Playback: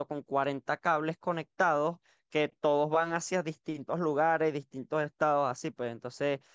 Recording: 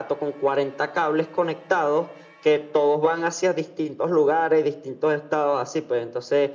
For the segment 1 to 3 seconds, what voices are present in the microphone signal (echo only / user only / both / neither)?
echo only